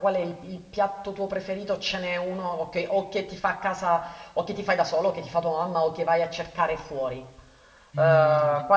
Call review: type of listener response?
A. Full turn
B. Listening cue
A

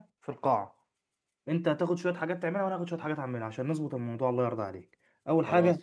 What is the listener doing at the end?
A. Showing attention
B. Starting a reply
A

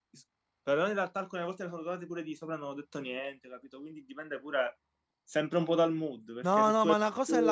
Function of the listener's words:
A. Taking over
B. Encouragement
A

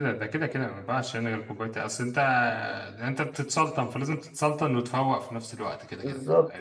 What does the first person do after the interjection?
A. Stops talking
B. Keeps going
A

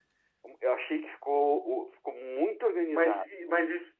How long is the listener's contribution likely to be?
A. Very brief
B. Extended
B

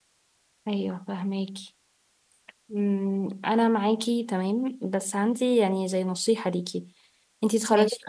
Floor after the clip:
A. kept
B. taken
A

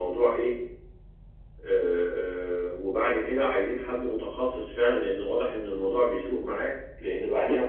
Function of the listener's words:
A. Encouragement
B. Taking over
A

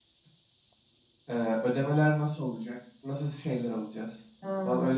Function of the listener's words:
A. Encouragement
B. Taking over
B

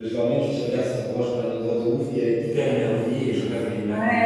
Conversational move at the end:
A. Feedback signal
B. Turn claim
B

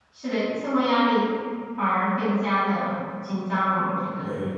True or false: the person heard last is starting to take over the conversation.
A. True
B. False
A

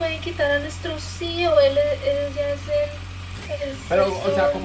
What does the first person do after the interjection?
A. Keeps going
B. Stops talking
B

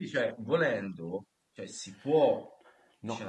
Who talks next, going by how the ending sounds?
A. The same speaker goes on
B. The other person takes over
B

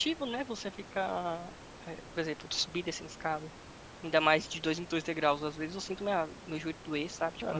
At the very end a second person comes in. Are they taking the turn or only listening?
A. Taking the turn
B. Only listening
A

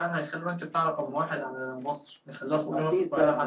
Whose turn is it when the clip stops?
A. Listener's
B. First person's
A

